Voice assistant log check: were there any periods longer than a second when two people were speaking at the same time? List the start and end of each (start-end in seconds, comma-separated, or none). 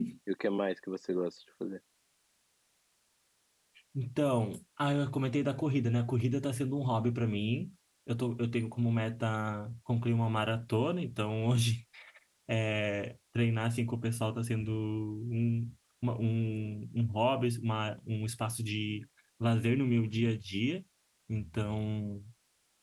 none